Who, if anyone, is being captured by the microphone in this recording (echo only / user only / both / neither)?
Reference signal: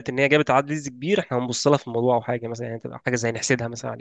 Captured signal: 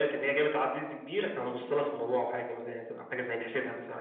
echo only